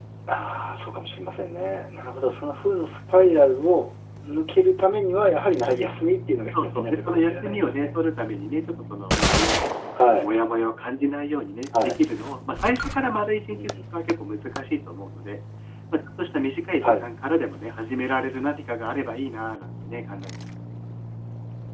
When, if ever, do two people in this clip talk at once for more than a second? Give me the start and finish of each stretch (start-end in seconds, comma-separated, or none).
6.5-7.9